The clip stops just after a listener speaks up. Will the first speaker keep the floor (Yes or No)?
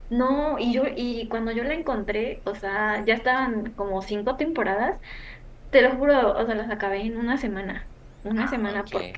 Yes